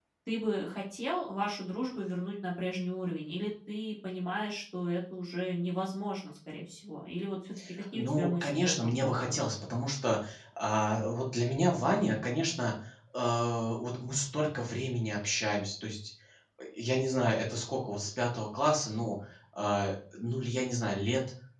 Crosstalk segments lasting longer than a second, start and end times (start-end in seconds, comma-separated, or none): 7.9-9.4